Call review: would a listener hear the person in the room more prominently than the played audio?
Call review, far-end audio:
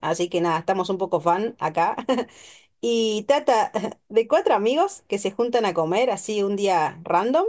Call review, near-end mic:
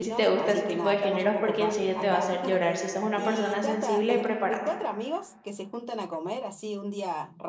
Yes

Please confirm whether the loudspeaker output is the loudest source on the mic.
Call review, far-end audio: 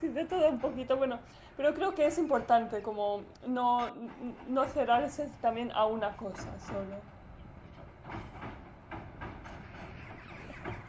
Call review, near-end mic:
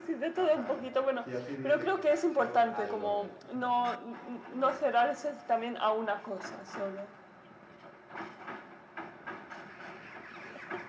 Yes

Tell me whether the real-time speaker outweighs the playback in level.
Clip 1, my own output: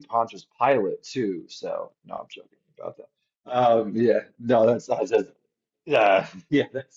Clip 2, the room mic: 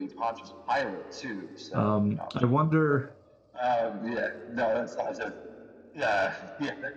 Yes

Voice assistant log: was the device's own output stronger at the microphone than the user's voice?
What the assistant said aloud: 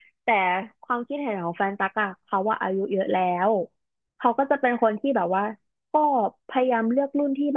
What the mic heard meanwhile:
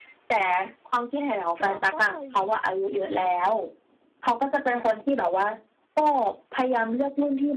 Yes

